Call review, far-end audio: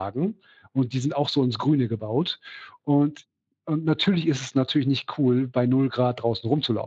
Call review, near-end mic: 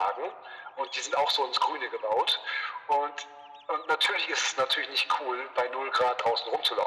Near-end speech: none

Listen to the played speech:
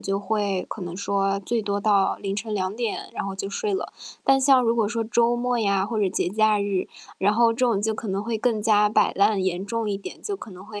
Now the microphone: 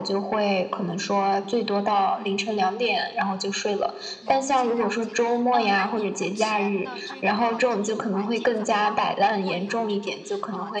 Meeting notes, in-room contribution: present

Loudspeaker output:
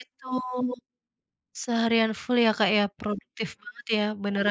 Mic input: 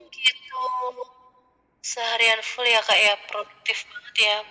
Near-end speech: none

